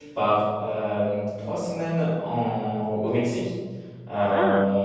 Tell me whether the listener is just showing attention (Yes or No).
Yes